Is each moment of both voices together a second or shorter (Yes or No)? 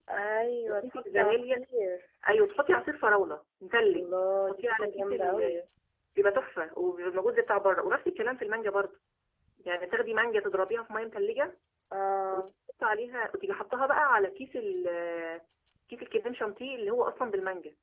No